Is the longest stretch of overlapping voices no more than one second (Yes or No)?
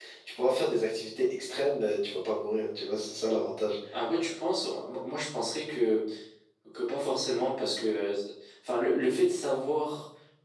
Yes